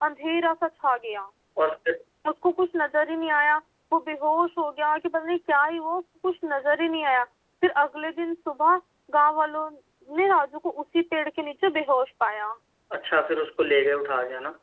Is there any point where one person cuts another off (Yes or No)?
No